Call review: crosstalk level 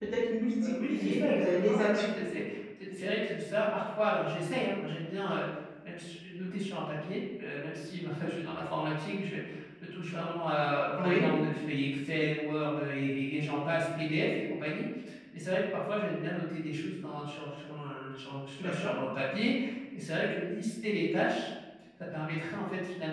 present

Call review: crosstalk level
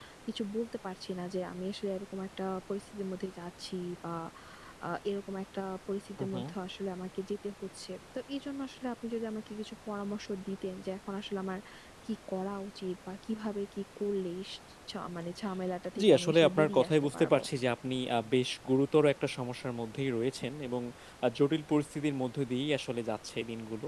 present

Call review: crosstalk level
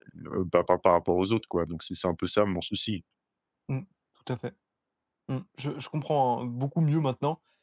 none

